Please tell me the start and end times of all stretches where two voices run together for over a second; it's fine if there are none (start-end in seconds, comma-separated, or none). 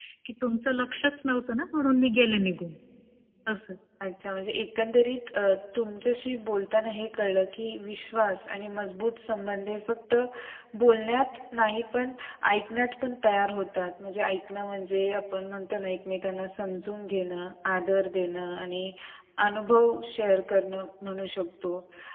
none